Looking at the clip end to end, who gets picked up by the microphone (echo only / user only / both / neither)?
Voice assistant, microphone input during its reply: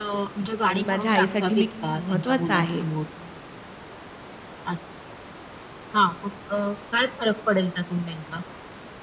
both